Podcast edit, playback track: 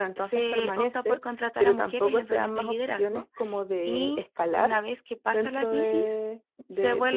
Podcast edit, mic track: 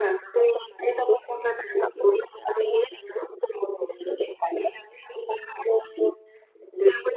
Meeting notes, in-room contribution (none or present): none